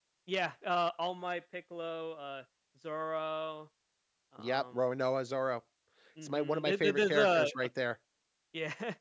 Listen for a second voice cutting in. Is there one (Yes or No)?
Yes